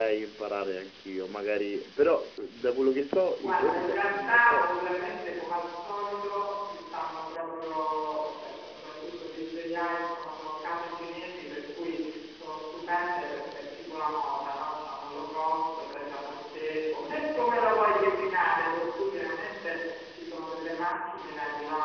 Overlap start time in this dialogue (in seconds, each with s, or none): 3.4 s